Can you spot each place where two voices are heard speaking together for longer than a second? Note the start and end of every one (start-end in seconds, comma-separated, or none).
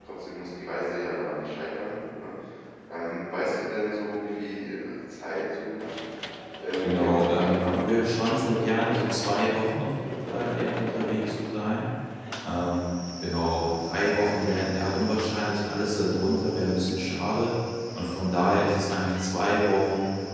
6.8-8.8